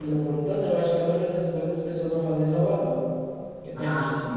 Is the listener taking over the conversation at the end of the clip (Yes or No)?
Yes